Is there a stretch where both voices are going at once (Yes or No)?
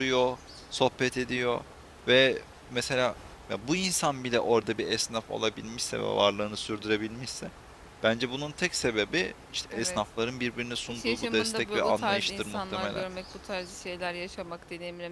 Yes